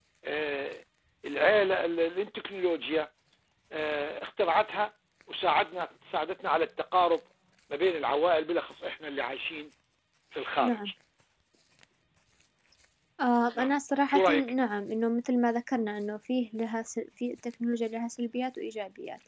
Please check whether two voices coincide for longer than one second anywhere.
No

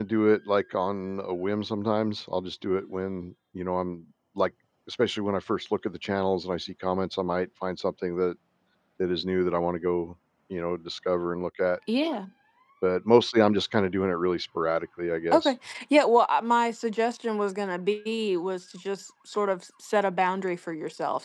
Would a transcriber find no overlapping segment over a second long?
Yes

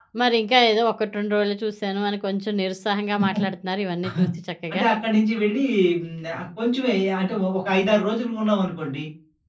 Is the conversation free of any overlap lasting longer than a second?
Yes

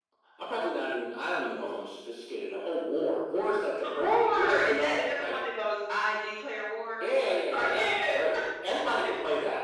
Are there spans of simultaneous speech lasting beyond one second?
Yes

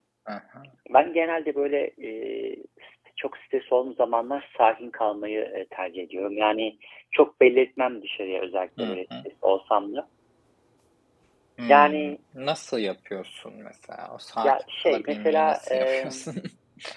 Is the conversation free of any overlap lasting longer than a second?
No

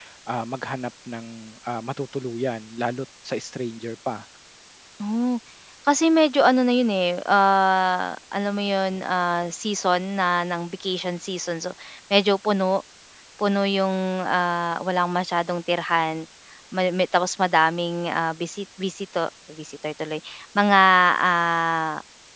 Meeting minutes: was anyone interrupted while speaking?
No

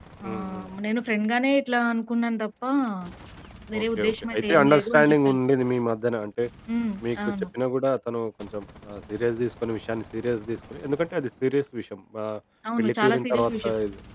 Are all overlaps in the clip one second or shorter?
No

